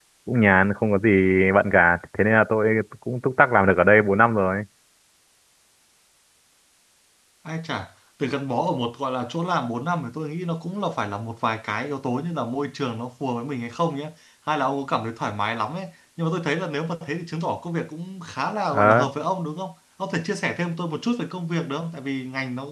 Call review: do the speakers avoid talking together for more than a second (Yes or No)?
Yes